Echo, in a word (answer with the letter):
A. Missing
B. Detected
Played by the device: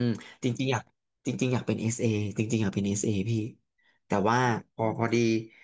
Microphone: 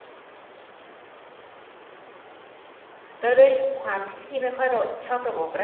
A